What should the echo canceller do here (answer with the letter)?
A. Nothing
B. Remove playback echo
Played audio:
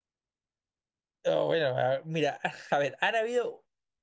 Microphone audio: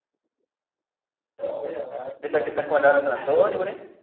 B